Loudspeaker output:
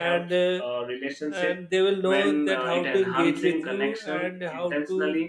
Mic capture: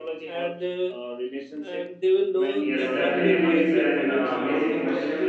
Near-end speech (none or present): present